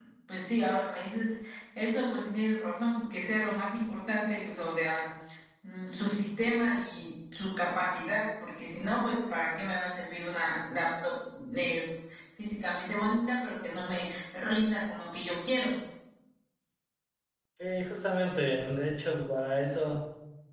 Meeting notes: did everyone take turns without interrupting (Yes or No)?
Yes